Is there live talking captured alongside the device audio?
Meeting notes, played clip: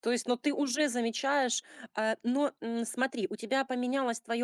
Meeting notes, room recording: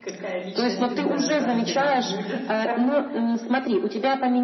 Yes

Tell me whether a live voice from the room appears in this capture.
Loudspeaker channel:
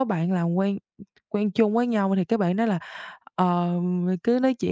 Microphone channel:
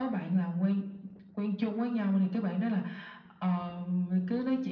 No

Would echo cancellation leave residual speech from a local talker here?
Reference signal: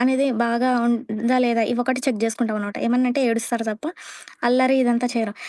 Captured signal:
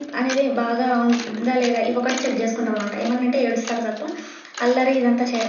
No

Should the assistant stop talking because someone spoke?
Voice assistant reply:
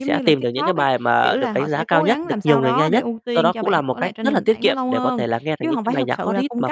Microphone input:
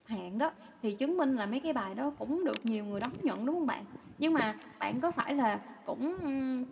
Yes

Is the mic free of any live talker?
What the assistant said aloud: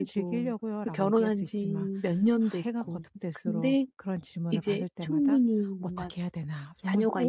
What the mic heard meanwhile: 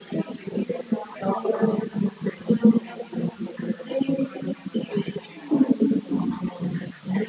Yes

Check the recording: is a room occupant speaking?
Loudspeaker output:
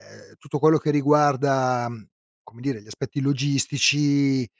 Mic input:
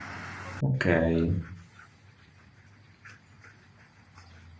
Yes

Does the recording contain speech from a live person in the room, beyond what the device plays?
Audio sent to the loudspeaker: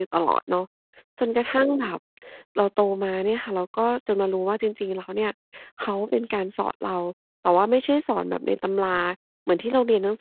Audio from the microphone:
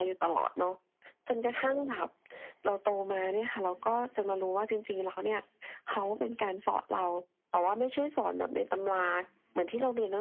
No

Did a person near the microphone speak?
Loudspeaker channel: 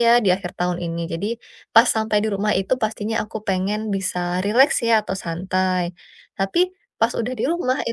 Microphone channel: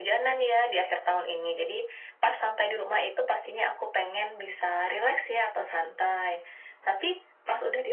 No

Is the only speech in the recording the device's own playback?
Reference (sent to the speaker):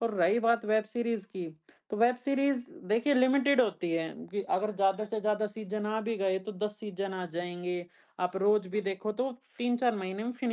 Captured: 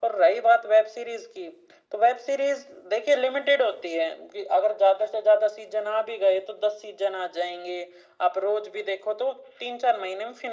Yes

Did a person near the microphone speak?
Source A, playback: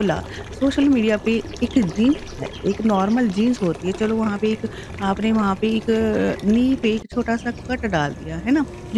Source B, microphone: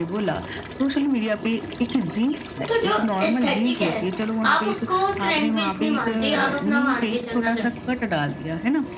Yes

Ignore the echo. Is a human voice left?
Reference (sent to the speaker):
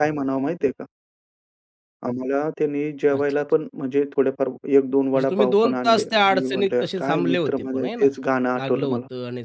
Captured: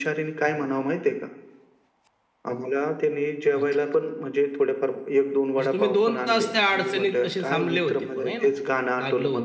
No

